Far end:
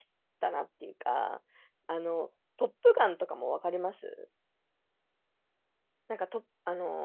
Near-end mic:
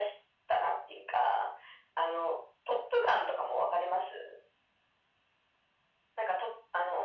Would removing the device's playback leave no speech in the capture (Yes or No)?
Yes